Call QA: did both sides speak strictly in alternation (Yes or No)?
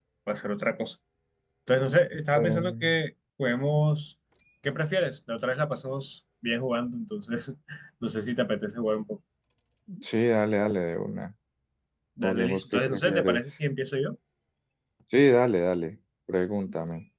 No